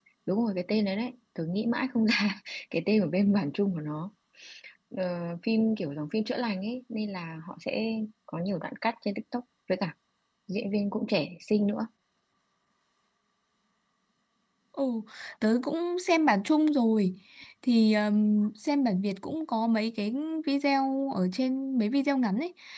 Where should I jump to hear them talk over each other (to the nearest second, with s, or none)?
none